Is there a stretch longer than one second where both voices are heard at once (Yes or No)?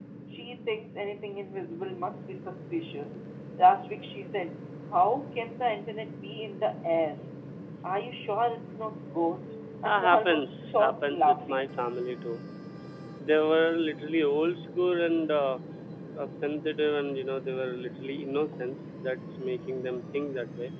Yes